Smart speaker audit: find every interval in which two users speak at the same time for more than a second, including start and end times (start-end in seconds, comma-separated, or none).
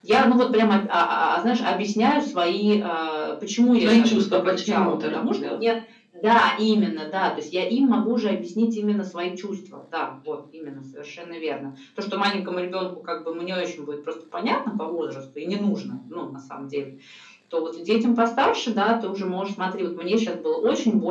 3.8-5.4